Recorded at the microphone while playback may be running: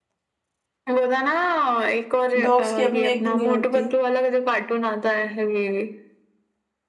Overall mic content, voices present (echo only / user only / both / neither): both